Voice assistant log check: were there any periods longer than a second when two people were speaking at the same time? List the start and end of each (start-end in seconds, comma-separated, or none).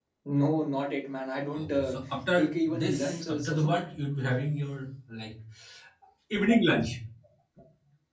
2.4-3.8